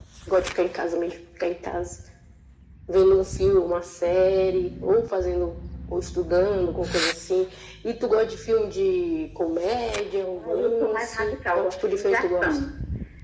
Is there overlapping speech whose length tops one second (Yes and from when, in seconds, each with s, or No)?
Yes, from 10.4 s